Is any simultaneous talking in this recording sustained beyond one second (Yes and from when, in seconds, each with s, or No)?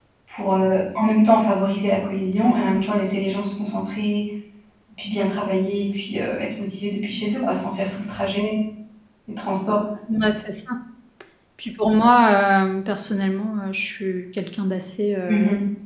No